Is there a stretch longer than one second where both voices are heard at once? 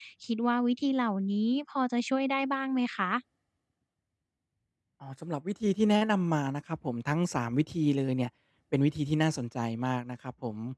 No

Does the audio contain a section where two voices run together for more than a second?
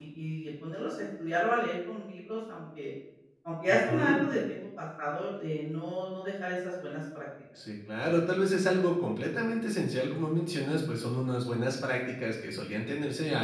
No

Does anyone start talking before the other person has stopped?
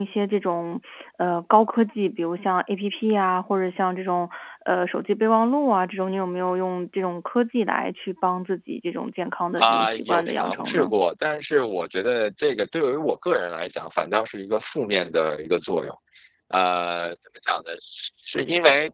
Yes, from 9.6 s

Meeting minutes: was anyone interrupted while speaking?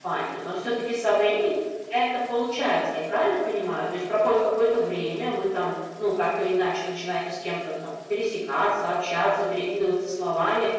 No

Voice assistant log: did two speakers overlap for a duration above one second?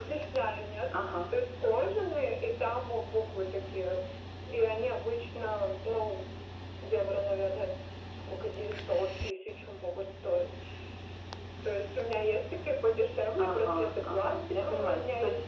Yes, from 13.4 s

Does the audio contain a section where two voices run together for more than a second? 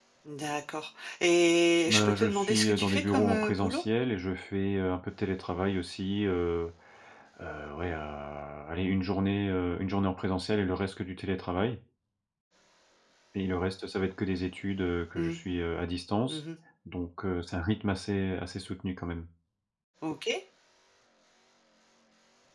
Yes, from 1.9 s

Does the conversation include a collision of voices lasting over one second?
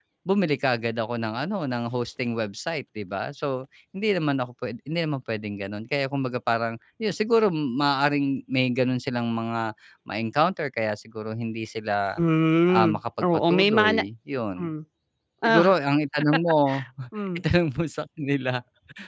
Yes, from 12.7 s

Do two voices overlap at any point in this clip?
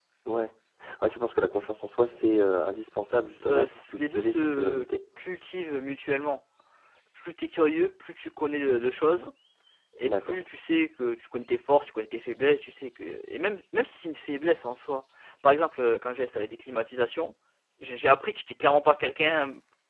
Yes, from 3.4 s

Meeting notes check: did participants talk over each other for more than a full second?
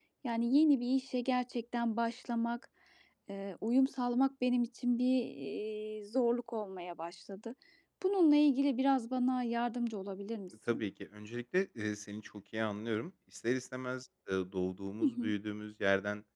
No

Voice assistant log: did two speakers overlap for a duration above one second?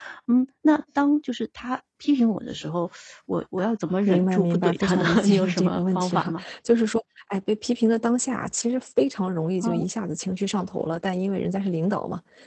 Yes, from 4.1 s

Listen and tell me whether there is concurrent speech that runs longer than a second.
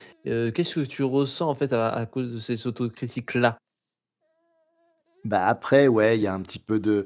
No

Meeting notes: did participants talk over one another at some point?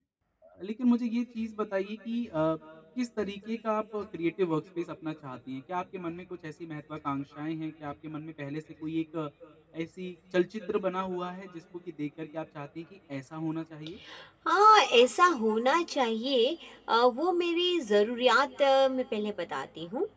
No

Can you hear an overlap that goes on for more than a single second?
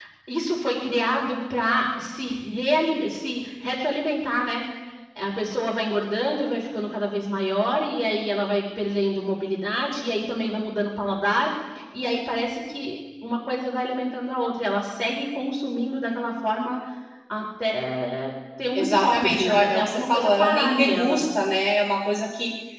Yes, from 18.7 s

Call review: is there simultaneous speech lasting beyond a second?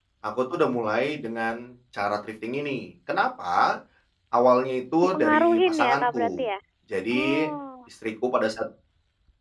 Yes, from 5.1 s

